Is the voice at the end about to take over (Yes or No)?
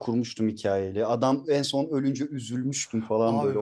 Yes